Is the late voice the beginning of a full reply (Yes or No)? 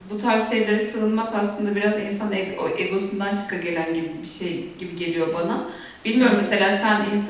No